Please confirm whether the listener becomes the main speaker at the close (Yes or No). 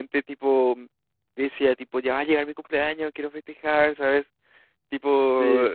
No